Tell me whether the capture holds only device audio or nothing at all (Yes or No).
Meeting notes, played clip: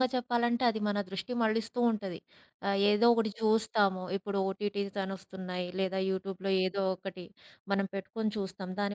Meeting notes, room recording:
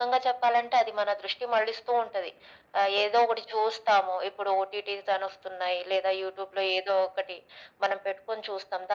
Yes